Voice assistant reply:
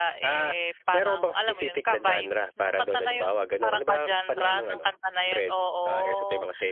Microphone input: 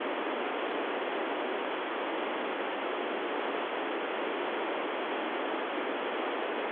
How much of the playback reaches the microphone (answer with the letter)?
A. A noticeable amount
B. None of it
B